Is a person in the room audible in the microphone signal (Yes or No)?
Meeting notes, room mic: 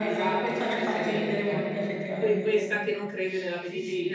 Yes